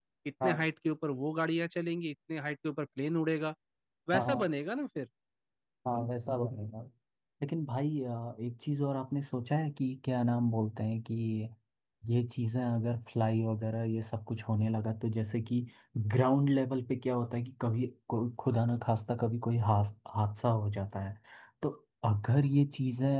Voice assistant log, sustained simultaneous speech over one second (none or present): none